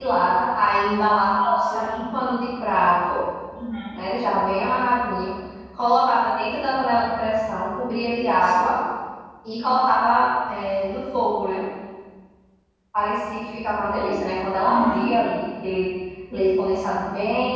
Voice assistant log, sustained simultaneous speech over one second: none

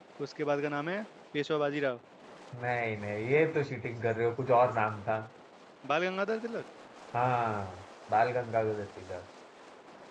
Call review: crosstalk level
none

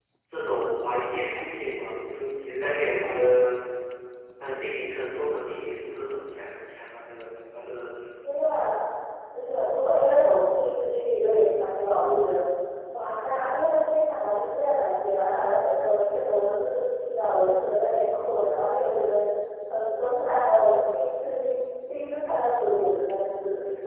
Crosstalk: none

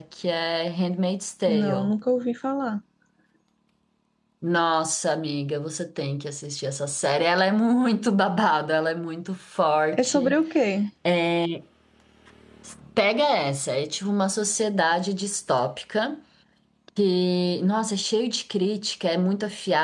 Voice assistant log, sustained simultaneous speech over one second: none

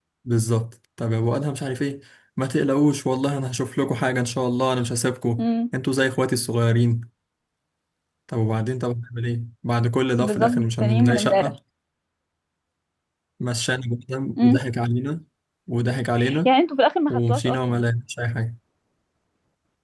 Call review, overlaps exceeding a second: present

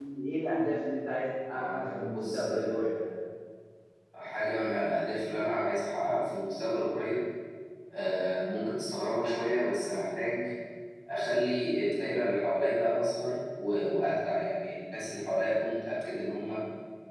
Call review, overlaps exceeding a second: present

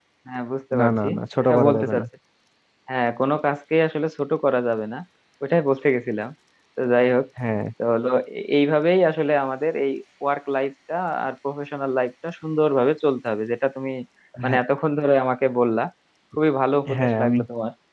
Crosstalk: present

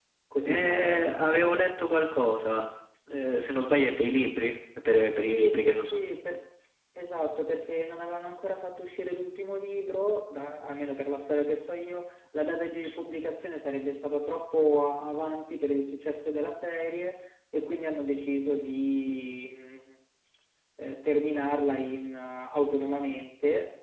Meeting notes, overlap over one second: present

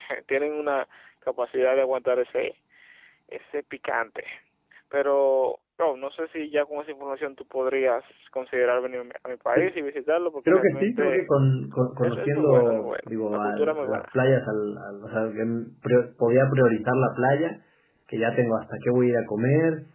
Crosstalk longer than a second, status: present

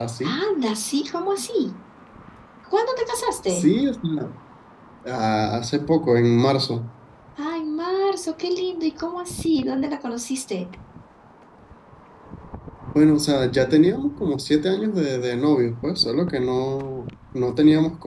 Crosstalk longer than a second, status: none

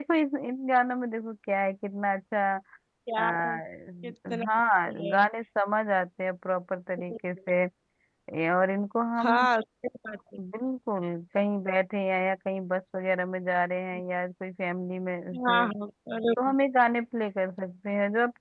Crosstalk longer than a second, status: none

